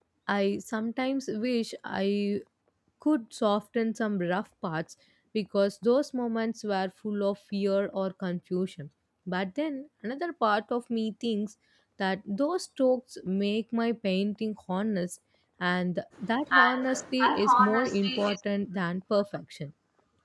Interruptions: present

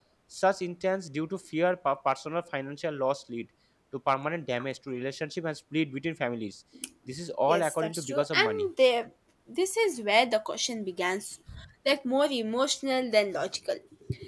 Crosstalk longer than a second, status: present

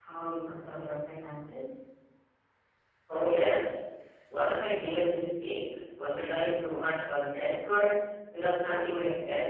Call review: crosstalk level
none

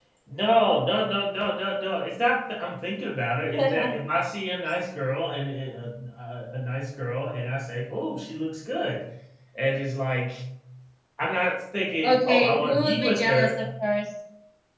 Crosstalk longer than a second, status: present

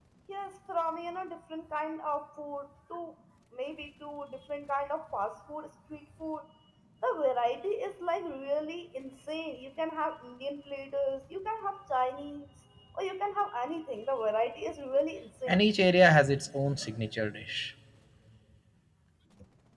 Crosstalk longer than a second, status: none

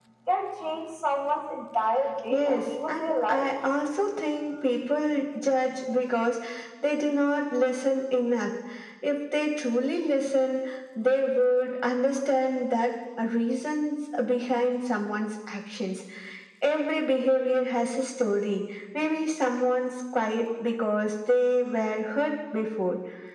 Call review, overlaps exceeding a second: present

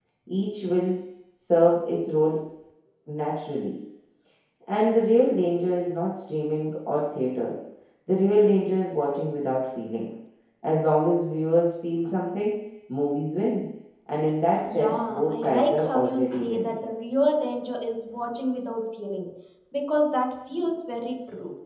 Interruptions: present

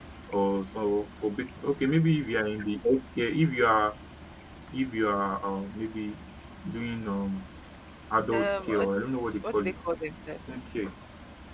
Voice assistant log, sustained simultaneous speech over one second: present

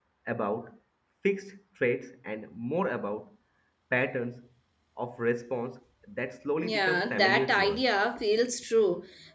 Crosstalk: present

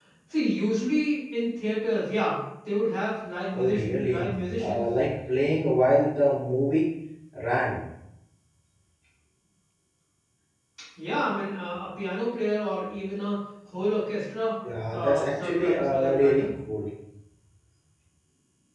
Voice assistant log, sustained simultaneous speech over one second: present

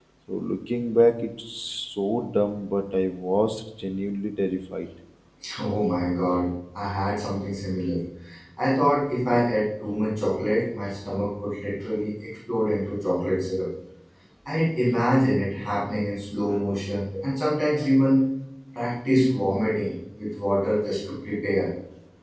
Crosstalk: none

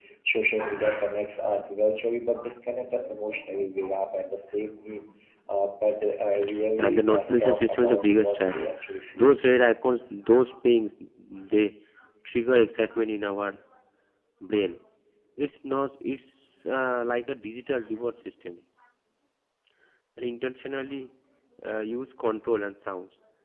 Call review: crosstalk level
present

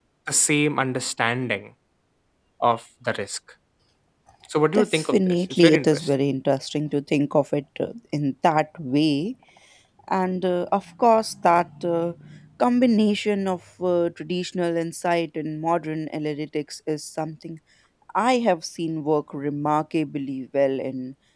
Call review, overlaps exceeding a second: present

